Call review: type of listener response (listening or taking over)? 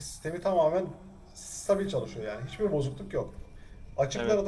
listening